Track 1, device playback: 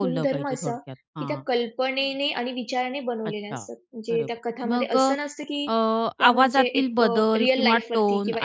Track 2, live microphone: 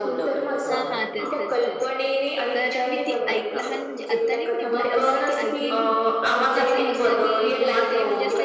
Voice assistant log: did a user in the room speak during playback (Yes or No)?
Yes